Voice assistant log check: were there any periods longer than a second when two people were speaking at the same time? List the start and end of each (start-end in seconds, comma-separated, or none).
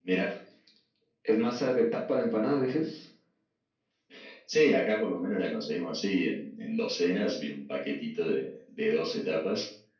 none